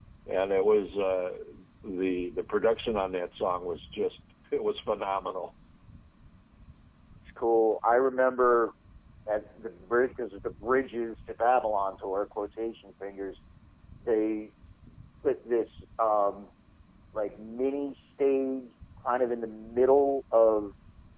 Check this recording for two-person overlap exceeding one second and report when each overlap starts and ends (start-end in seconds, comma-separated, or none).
none